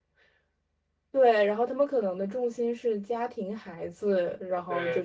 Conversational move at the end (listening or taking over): taking over